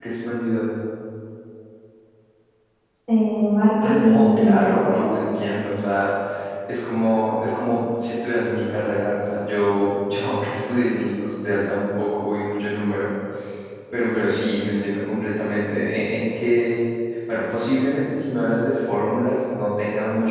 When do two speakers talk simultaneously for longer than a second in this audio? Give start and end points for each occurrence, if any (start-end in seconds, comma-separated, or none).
3.8-5.2